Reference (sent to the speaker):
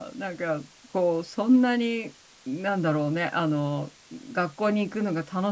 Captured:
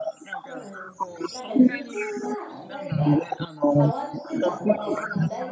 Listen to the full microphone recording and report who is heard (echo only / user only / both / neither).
both